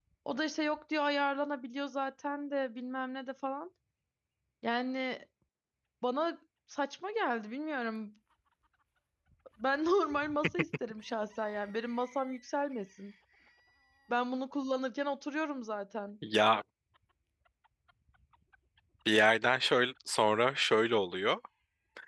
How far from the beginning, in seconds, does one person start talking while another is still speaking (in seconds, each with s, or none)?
none